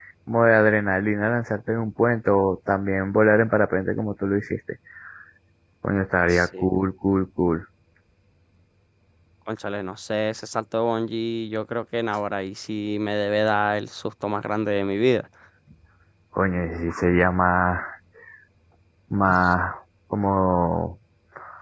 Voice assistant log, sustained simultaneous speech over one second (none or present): none